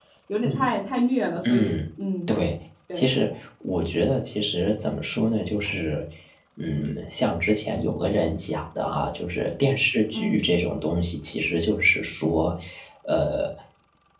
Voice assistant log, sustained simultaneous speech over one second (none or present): none